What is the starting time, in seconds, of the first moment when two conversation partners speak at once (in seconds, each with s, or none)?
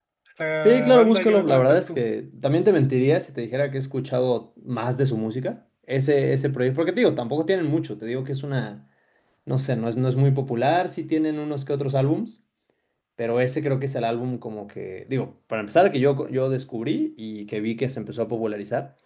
0.6 s